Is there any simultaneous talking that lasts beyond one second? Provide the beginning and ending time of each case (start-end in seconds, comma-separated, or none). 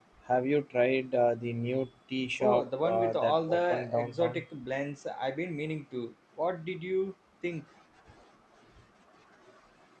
2.4-4.4